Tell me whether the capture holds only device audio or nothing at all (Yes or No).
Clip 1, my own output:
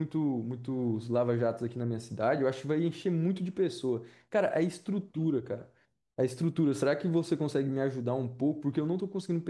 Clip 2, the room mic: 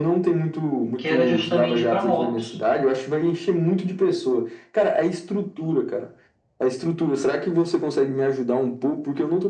No